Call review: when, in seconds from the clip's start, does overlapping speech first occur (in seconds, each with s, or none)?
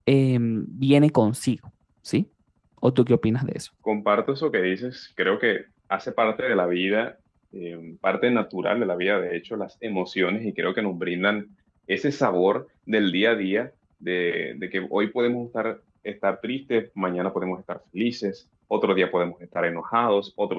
none